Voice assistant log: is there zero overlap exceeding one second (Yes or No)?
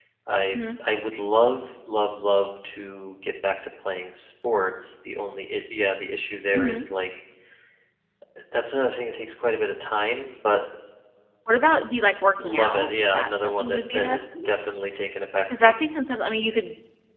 No